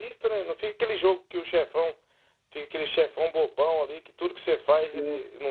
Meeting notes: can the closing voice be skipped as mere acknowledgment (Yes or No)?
Yes